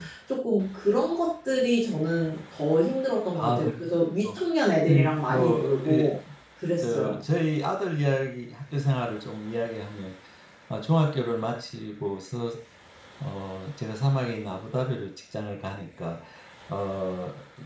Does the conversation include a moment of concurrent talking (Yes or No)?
Yes